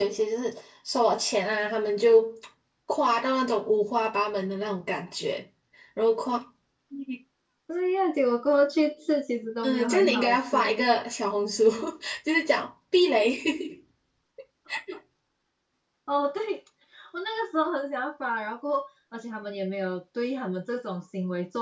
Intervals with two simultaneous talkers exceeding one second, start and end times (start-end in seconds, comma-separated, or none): 9.6-10.8